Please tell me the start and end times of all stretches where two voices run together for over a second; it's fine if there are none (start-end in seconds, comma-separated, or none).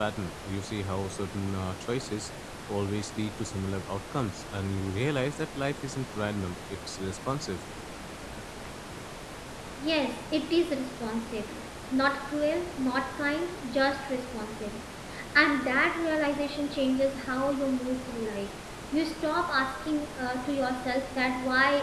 none